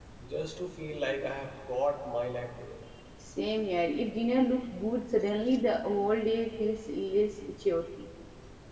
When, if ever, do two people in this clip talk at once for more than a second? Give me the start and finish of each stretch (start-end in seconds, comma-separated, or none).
none